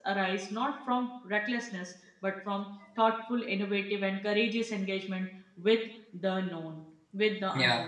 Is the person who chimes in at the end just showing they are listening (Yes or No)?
No